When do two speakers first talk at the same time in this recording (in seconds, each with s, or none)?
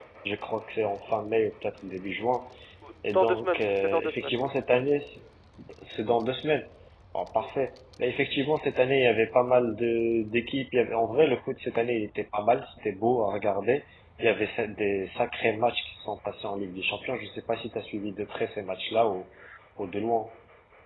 3.0 s